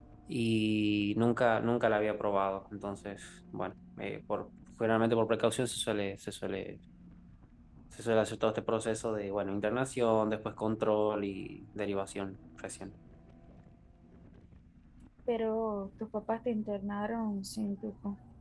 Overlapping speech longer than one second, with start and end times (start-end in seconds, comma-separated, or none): none